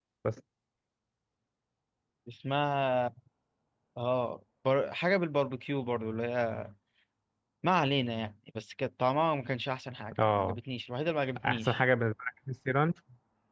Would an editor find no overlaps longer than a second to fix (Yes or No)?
Yes